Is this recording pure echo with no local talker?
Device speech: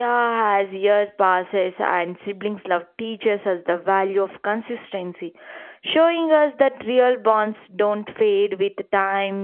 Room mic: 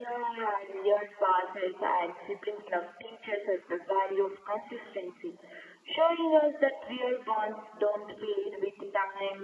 Yes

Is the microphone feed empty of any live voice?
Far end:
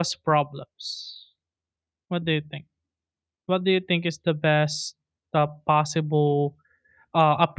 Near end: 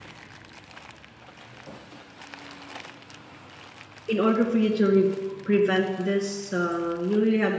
No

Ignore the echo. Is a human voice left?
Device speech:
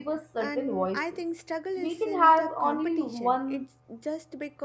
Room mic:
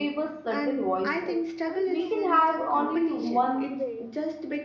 Yes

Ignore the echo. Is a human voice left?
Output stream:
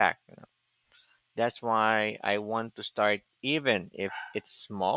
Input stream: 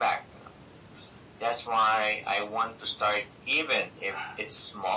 No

